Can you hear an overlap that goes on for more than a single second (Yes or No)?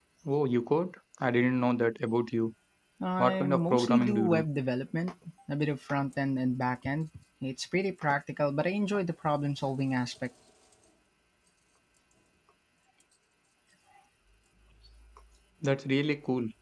Yes